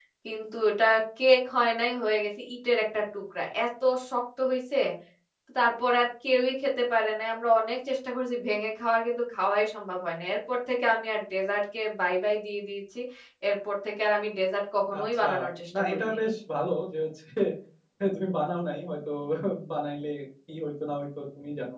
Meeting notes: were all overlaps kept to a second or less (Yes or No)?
Yes